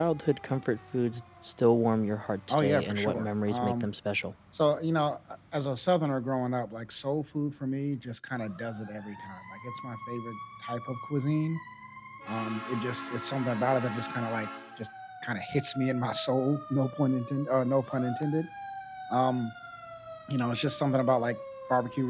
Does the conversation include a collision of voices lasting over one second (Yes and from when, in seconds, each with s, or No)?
Yes, from 2.5 s